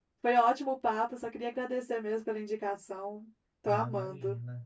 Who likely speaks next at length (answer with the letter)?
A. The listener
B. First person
A